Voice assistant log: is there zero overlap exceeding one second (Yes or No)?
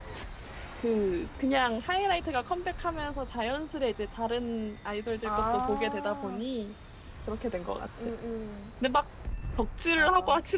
No